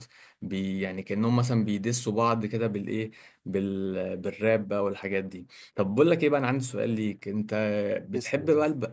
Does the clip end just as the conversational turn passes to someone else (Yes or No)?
No